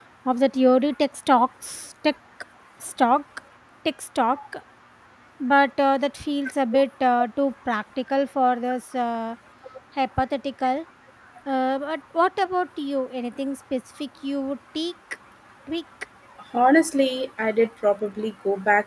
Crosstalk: none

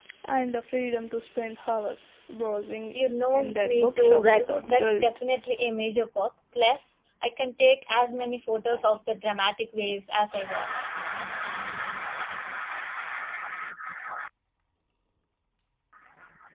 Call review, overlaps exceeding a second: present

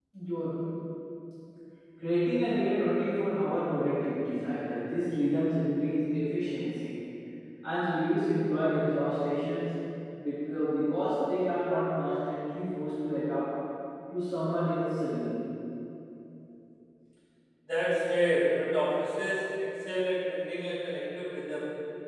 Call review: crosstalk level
none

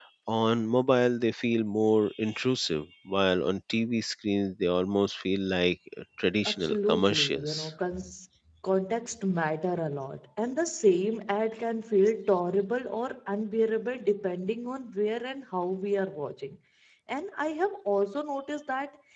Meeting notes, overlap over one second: present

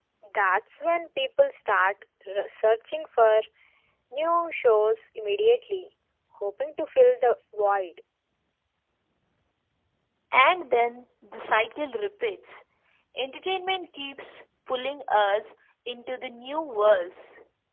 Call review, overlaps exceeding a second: none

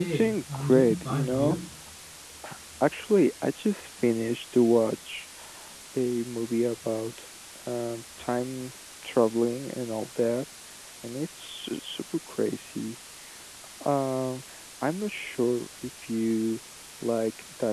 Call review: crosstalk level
present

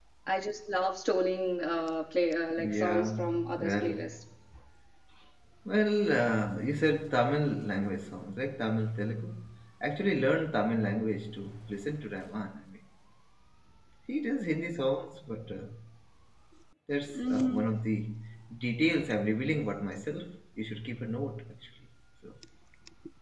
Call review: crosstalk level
present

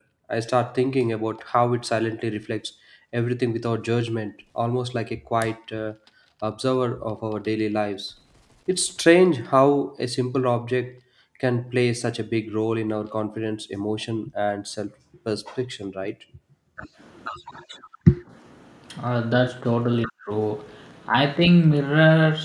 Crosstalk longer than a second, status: none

